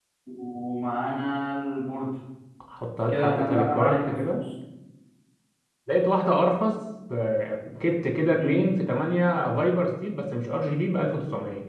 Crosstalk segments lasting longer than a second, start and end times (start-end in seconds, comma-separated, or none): 3.1-4.4